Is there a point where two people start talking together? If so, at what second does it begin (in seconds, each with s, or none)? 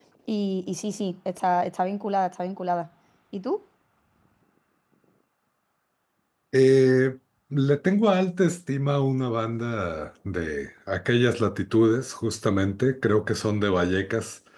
none